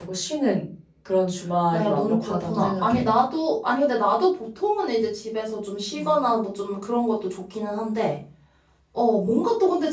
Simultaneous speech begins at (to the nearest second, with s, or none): 2 s